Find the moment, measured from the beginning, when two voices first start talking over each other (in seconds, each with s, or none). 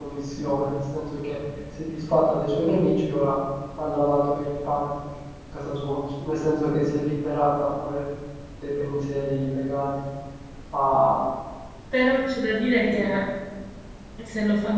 none